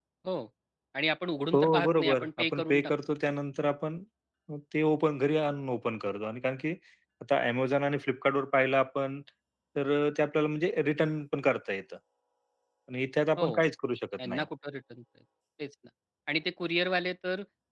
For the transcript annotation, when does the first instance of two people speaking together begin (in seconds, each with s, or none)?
1.5 s